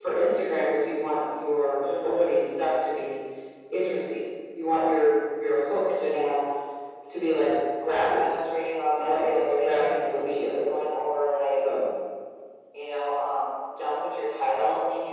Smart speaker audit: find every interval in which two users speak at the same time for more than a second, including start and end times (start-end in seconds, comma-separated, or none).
9.0-10.7